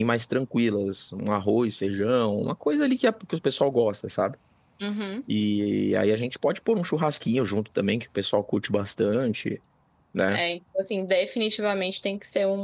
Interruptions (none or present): none